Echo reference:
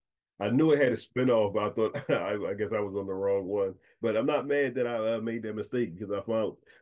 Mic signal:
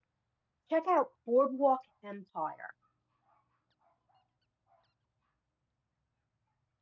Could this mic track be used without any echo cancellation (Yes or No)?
Yes